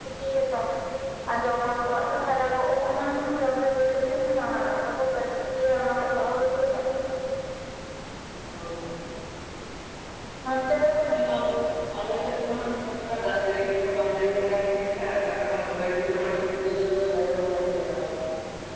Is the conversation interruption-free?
Yes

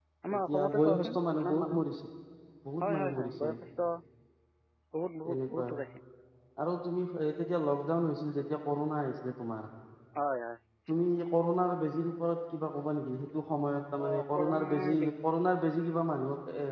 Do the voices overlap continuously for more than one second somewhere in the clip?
Yes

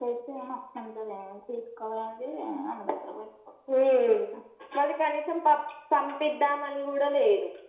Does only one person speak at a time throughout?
Yes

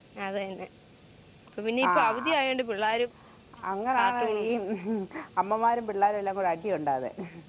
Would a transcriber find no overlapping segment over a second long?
Yes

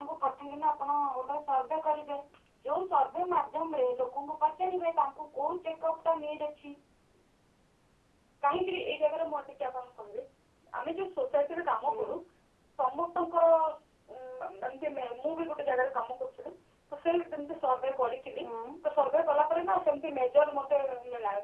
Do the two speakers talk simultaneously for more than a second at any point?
No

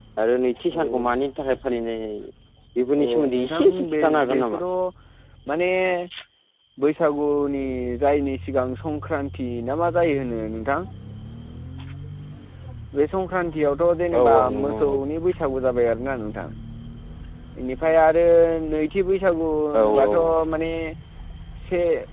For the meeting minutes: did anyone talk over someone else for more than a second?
Yes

